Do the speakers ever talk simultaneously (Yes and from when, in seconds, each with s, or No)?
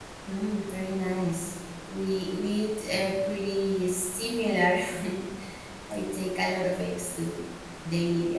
No